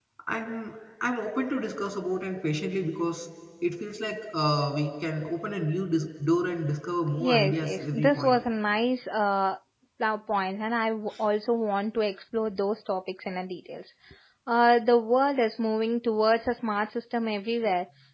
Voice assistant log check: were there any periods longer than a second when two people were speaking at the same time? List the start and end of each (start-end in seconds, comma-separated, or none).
7.2-8.4